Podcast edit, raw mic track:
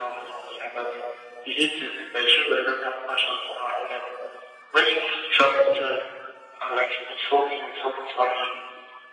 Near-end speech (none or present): none